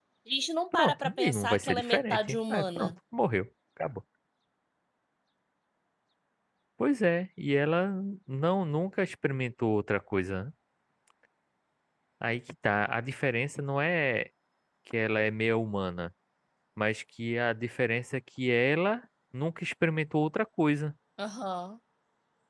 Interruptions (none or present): present